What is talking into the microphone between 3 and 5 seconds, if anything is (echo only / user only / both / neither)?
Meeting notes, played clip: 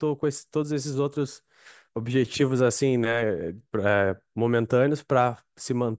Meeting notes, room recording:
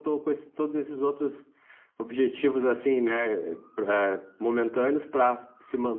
echo only